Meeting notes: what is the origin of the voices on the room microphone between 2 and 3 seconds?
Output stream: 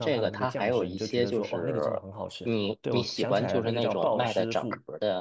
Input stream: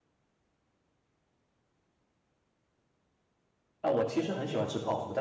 neither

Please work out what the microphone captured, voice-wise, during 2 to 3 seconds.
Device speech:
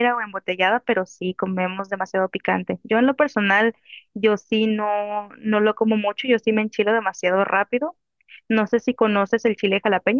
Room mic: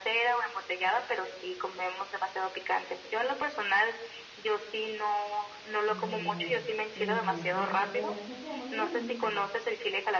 echo only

